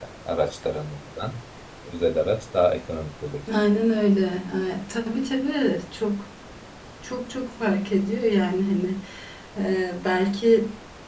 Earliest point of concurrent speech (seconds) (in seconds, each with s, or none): none